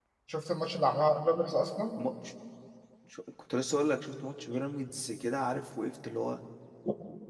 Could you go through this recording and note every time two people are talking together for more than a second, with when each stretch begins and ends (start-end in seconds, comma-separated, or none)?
none